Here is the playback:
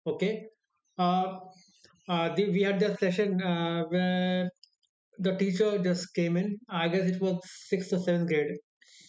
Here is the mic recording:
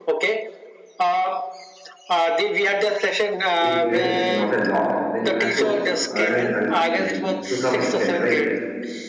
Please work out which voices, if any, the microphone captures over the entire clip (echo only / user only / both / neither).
both